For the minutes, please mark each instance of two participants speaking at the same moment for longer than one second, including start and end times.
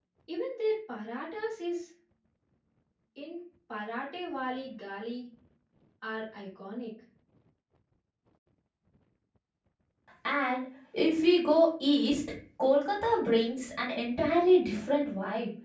none

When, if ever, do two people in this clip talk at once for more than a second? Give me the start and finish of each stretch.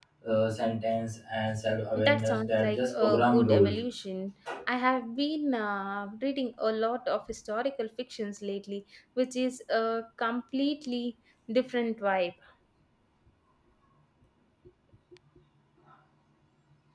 1.9-3.8

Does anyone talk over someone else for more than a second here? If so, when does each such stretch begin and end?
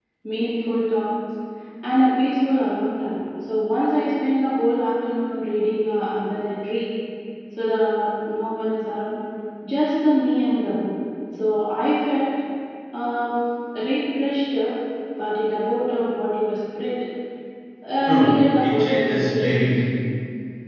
18.0-19.5

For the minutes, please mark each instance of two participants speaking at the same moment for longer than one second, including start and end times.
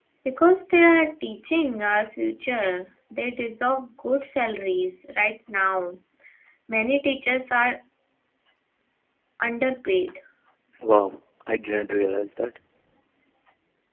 none

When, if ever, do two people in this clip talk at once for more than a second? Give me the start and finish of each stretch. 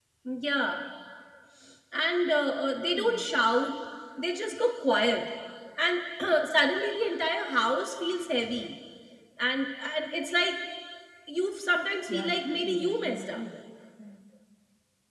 12.1-13.4

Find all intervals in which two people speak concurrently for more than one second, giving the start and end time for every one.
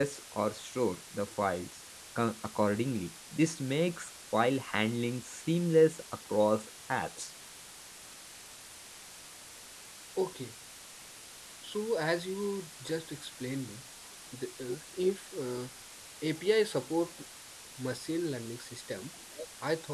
none

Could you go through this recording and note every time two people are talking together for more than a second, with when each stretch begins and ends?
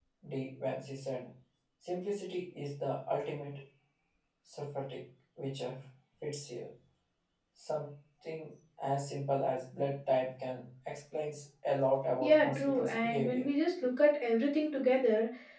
12.2-13.5

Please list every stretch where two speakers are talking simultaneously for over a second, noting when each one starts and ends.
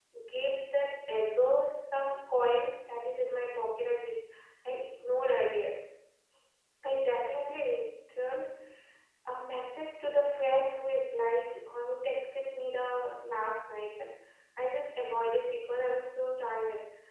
none

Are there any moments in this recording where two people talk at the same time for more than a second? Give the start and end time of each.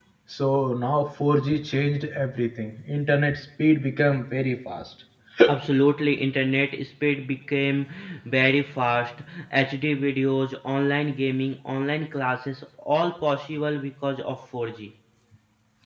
none

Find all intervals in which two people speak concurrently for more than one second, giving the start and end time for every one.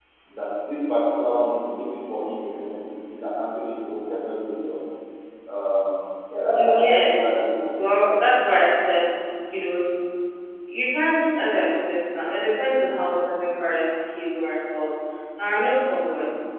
6.5-8.2

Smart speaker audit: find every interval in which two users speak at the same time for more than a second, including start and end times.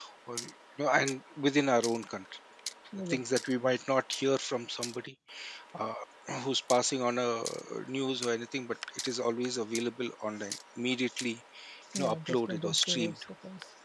11.9-13.2

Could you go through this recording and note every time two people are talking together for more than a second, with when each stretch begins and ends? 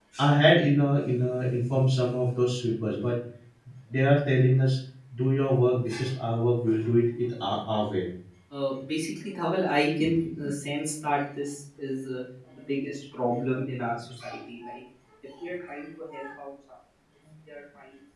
none

